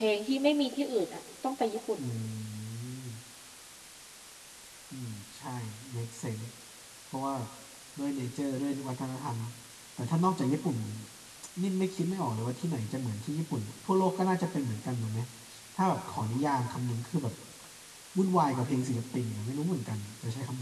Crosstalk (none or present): none